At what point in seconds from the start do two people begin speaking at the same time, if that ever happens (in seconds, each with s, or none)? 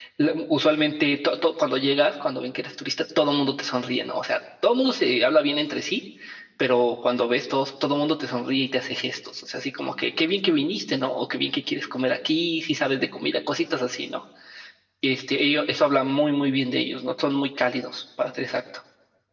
none